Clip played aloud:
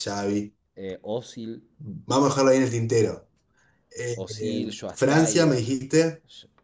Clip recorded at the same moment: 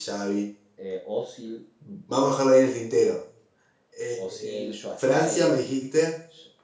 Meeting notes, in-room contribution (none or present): none